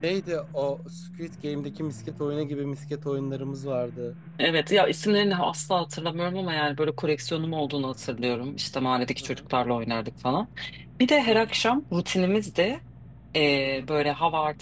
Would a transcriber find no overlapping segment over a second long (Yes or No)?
Yes